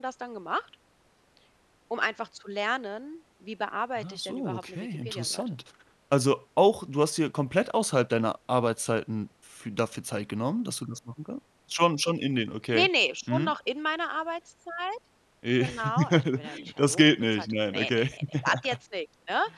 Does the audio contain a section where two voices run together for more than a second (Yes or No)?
Yes